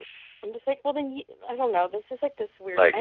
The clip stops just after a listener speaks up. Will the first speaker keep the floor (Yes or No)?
Yes